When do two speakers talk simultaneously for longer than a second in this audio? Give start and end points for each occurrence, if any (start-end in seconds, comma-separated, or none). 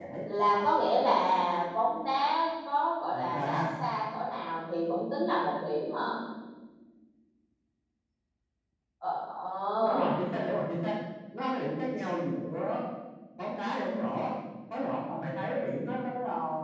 none